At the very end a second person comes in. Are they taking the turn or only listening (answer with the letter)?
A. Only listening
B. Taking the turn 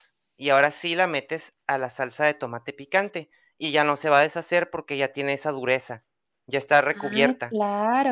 B